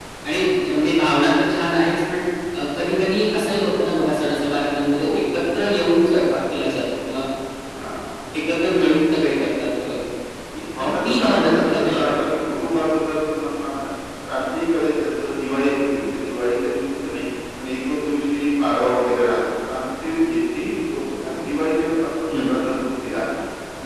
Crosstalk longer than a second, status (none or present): present